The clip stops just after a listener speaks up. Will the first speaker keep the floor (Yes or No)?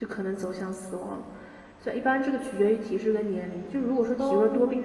Yes